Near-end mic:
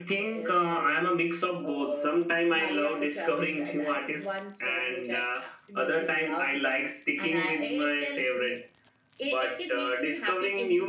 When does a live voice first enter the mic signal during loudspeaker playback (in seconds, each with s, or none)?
none